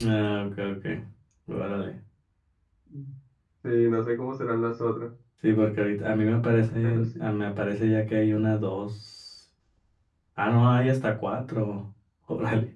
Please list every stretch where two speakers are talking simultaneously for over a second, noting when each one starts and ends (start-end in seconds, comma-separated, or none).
none